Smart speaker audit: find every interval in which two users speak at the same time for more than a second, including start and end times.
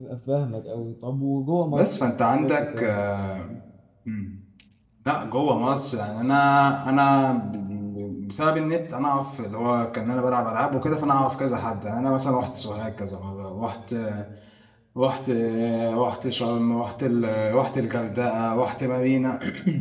1.7-3.0

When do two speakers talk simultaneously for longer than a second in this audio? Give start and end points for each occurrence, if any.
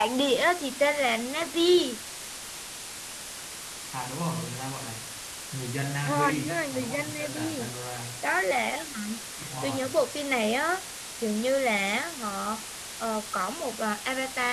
6.0-7.7

